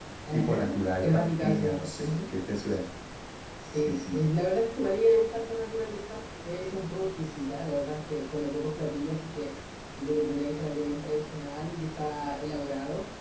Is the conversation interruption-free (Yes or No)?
No